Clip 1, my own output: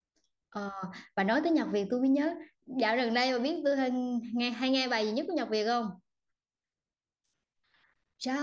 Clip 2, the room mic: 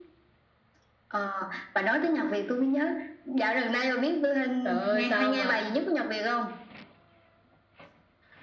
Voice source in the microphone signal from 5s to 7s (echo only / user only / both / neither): both